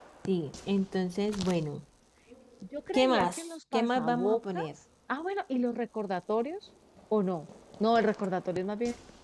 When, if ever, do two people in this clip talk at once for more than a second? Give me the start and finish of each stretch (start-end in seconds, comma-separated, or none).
2.9-4.7